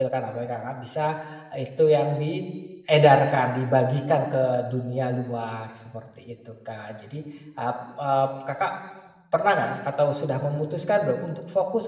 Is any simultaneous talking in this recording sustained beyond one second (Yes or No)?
No